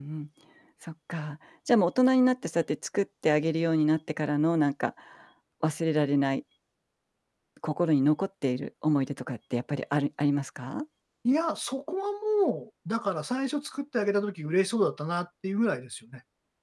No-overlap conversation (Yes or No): Yes